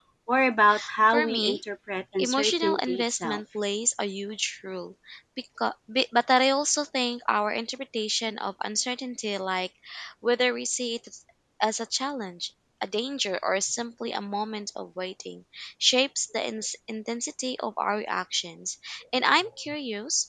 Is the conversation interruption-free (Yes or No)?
No